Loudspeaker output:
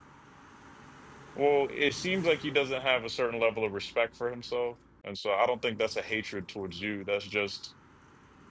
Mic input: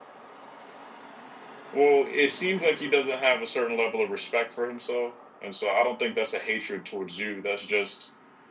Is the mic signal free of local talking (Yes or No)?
Yes